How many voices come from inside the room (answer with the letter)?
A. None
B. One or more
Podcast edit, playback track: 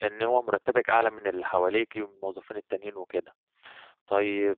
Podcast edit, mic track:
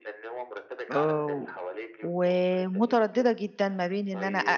B